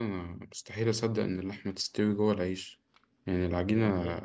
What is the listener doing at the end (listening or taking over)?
listening